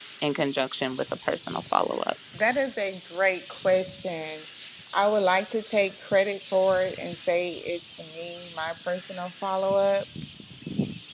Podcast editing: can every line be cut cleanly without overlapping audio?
Yes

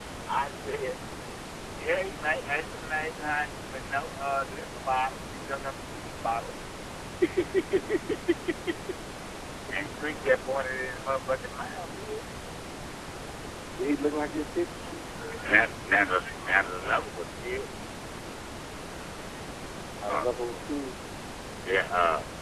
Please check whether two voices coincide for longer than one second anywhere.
No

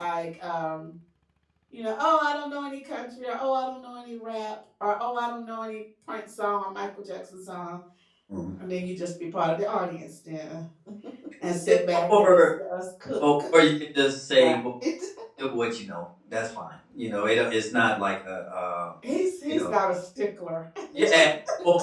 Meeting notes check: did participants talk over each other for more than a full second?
No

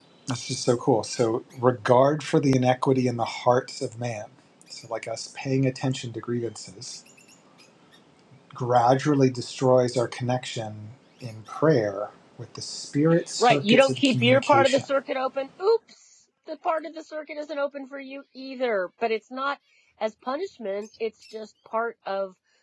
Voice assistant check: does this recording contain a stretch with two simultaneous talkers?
Yes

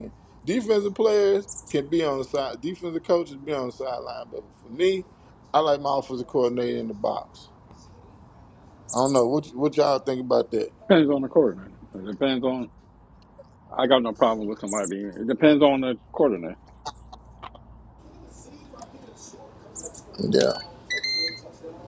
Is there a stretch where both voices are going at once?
No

